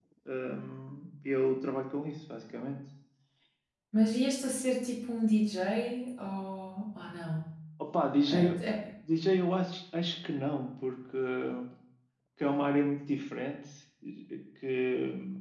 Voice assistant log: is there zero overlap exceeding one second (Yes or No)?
Yes